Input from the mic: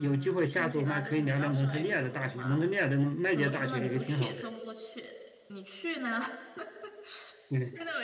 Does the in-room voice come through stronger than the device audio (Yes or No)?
No